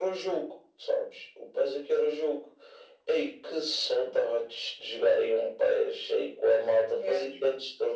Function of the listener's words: listening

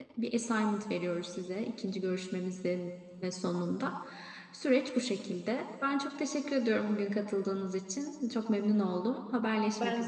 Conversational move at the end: taking over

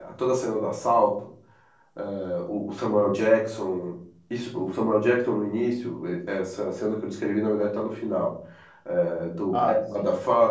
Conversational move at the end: listening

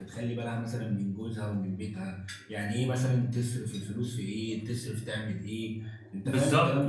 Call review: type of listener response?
taking over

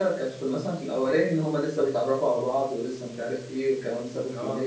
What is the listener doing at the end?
listening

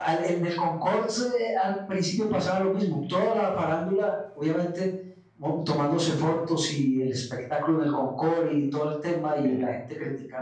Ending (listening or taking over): listening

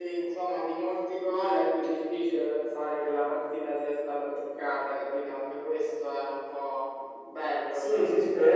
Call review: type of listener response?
taking over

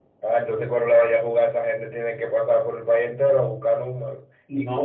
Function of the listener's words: taking over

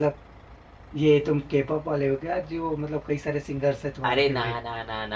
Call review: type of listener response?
taking over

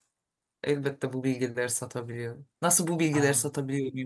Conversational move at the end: listening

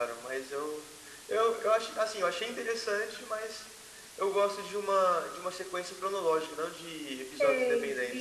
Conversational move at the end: taking over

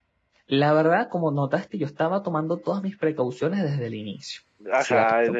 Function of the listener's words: taking over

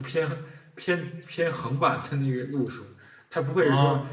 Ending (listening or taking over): listening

